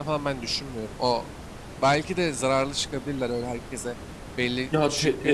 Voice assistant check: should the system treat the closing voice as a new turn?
Yes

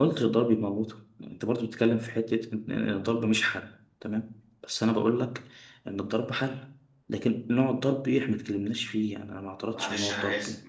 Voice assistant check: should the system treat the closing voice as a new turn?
Yes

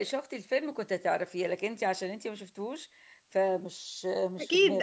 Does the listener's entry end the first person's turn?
Yes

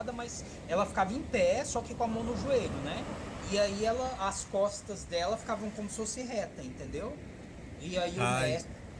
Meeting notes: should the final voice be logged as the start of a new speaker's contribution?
No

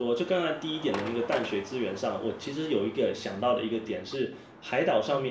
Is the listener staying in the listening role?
Yes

